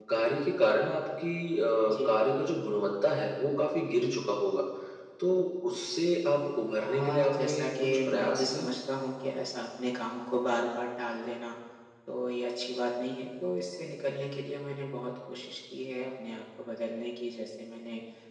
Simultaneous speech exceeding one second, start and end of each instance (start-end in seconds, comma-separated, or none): 6.8-8.7